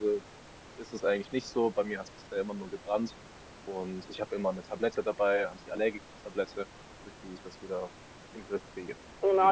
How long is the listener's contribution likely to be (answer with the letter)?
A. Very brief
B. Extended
B